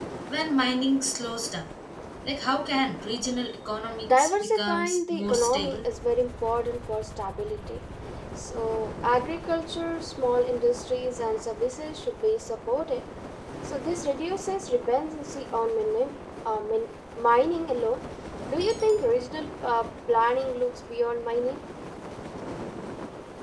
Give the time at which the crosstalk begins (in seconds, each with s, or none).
4.1 s